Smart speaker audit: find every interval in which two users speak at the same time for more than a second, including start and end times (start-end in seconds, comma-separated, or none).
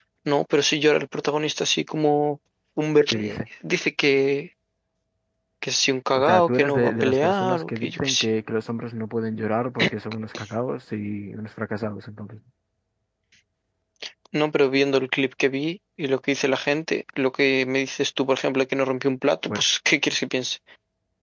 6.2-8.3